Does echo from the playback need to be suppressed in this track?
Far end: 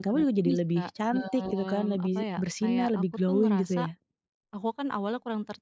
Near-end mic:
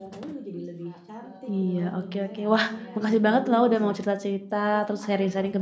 Yes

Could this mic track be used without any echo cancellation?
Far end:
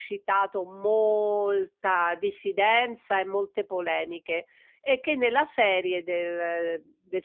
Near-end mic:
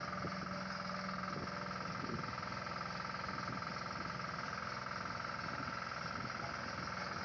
Yes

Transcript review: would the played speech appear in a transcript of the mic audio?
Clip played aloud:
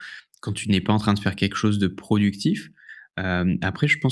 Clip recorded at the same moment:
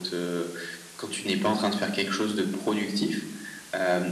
Yes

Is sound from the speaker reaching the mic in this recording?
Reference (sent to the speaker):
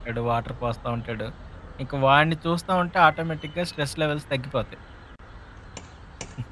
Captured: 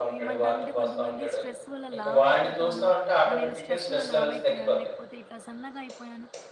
Yes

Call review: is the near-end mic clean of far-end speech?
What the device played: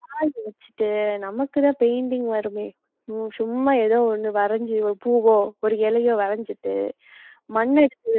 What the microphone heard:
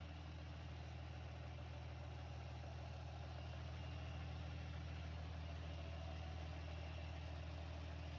Yes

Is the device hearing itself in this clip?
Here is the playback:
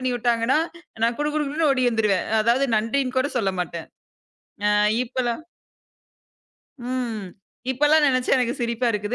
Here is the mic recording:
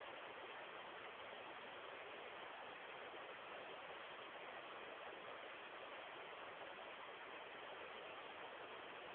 No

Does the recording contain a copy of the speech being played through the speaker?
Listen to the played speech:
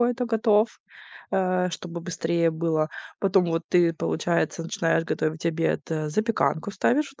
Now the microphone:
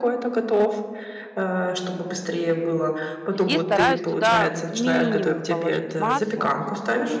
Yes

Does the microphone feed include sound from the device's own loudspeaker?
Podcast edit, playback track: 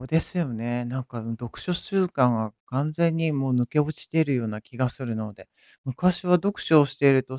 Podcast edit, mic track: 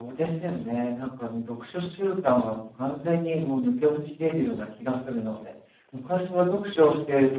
Yes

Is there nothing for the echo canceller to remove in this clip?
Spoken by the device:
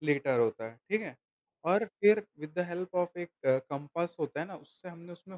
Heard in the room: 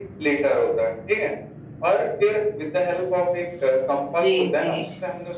No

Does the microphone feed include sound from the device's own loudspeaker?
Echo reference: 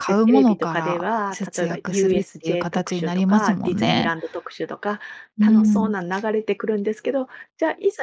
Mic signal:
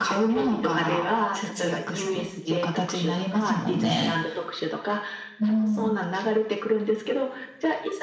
Yes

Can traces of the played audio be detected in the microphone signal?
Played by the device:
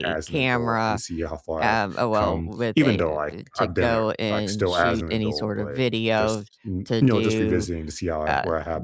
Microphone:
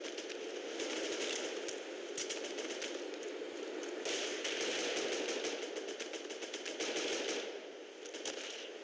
No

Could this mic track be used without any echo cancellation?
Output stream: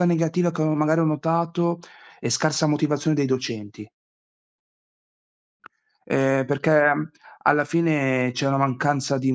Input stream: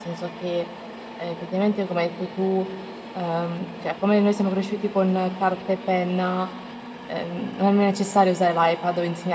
Yes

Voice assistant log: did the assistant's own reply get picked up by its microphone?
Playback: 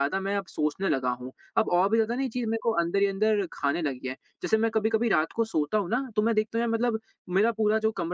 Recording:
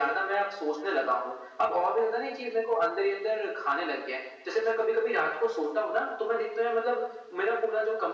Yes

